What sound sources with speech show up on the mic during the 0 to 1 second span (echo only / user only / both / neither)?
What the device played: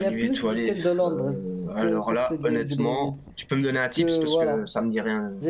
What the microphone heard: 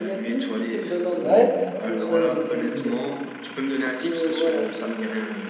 echo only